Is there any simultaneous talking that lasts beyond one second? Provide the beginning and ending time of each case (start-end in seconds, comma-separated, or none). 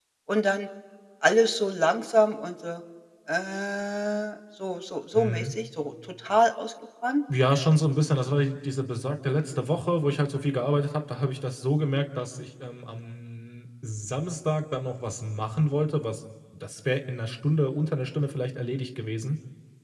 none